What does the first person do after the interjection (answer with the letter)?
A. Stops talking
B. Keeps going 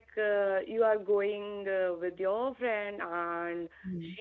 B